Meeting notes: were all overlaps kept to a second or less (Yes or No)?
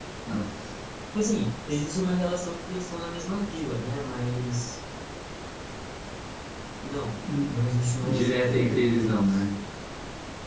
No